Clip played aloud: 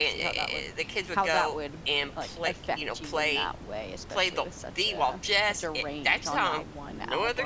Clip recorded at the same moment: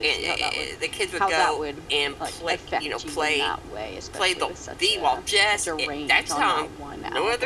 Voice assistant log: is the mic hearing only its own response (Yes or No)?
Yes